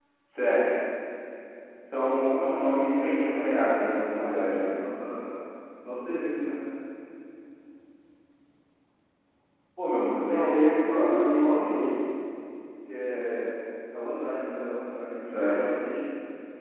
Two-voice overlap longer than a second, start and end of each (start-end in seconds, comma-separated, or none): 2.2-4.8, 10.1-11.8